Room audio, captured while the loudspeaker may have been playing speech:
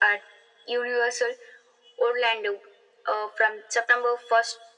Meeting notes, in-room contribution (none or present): none